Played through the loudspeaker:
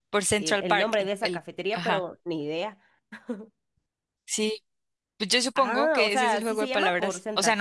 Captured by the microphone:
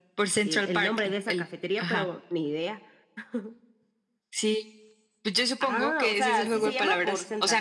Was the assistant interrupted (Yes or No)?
Yes